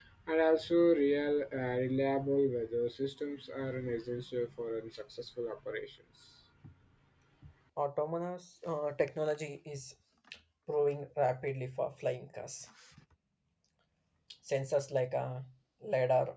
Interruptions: none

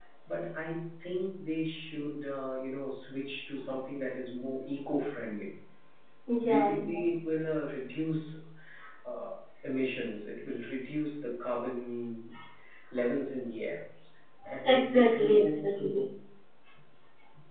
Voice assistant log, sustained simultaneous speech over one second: present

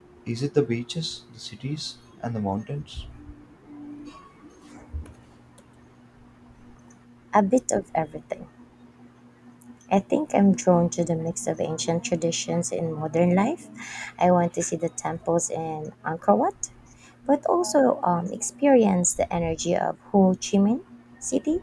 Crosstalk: none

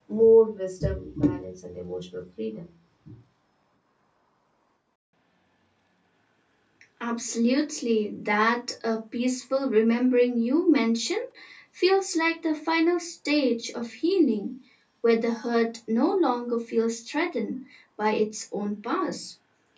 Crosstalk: none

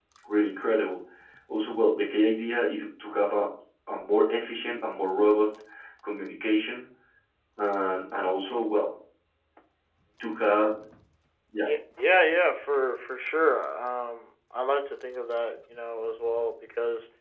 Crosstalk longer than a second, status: none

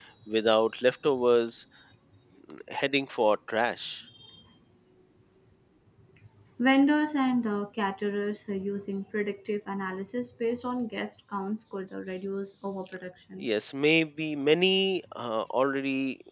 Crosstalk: none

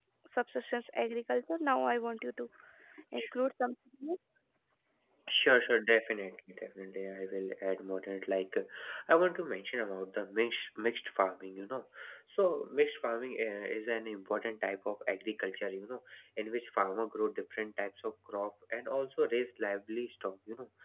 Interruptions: none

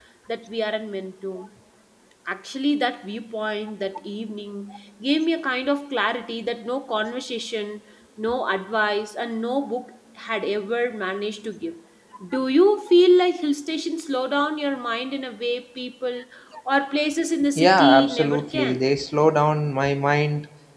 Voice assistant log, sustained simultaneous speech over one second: present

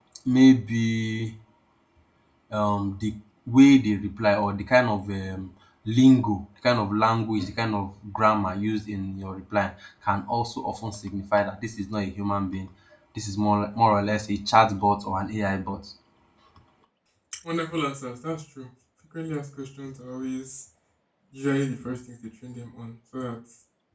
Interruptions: none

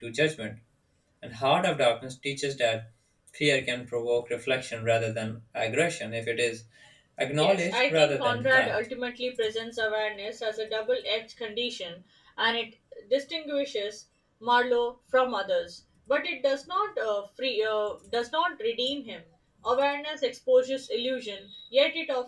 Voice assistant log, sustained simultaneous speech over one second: present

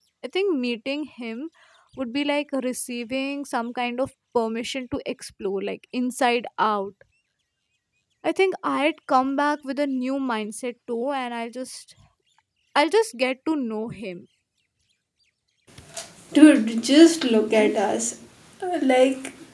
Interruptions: none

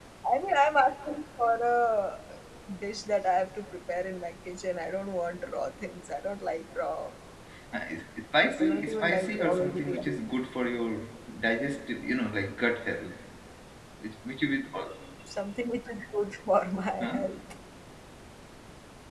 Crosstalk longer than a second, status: present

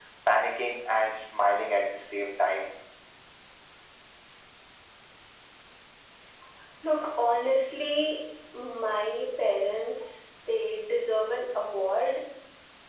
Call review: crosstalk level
none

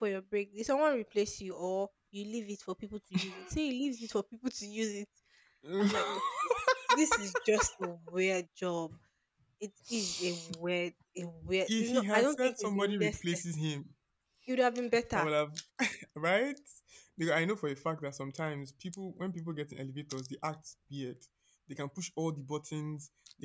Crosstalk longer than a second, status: present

